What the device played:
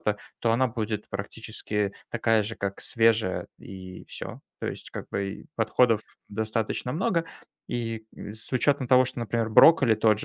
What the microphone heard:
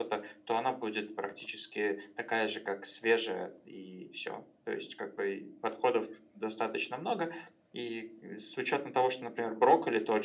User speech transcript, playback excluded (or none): none